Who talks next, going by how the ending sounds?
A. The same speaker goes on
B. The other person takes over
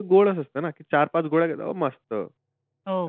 B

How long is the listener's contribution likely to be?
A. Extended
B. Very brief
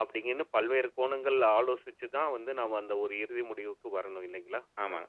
A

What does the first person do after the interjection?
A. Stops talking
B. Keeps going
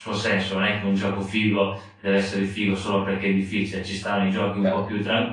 B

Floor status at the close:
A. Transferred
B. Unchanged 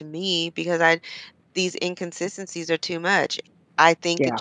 B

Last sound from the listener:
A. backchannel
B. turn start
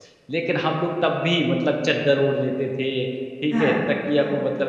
A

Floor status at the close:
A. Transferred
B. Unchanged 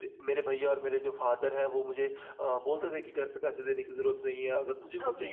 B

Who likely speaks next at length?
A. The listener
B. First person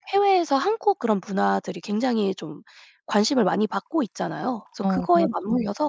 B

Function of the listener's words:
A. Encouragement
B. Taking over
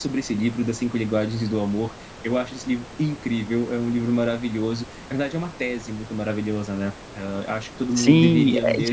B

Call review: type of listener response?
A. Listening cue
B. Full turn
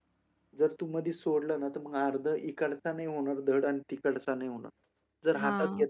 A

